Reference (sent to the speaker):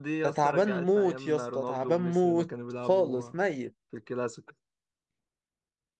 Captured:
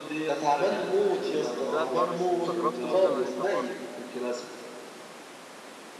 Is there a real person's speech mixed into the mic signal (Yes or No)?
Yes